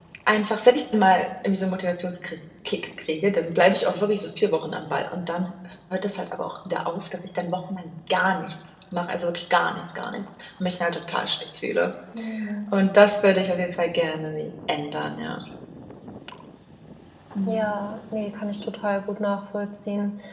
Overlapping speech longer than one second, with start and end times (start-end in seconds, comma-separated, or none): none